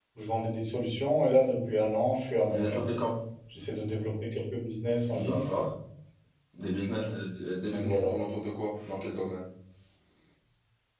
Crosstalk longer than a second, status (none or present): none